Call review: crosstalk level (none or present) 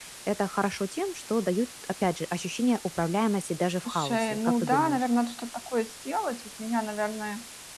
present